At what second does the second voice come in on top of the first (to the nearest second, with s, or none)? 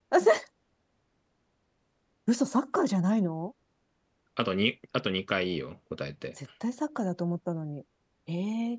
none